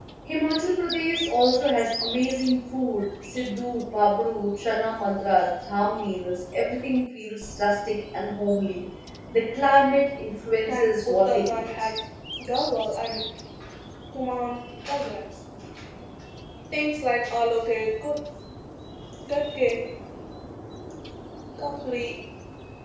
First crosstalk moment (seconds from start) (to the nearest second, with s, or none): 11 s